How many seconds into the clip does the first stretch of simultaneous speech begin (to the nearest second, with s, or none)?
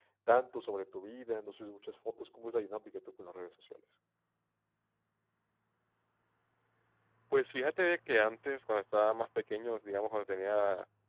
none